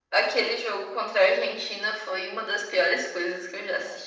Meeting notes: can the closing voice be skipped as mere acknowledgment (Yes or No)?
Yes